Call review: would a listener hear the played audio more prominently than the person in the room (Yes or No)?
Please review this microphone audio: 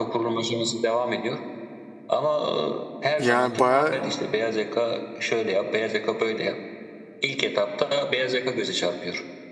No